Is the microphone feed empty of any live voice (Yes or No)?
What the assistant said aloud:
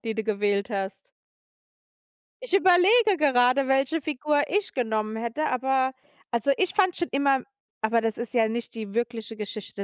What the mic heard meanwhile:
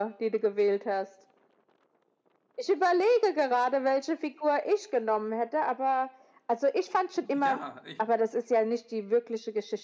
No